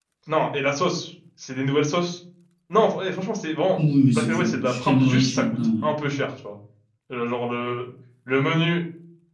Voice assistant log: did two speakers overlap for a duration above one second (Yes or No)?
Yes